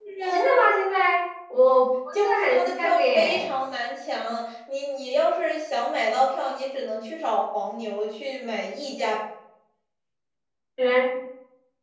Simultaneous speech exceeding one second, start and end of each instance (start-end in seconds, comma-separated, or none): 2.1-3.5